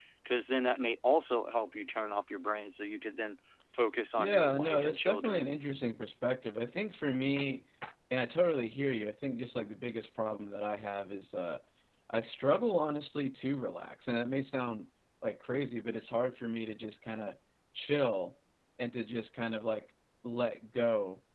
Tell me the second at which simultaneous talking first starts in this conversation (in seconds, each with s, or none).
4.2 s